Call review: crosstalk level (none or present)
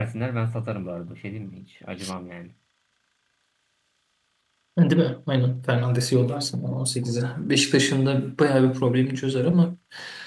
none